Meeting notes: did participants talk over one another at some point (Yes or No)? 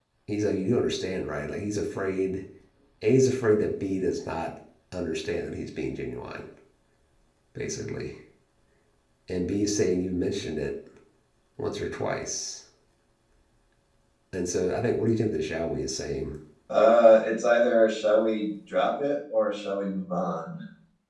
No